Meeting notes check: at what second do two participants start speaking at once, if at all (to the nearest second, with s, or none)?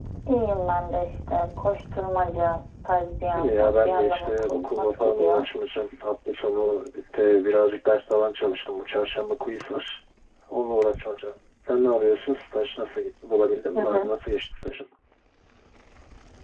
3 s